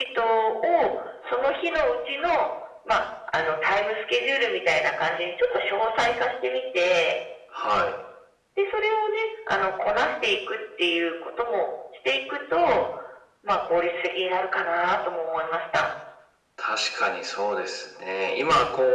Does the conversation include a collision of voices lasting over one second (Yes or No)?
No